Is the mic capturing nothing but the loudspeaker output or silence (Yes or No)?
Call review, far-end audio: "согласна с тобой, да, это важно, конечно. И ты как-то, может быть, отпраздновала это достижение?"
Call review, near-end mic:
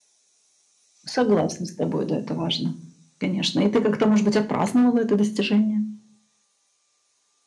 Yes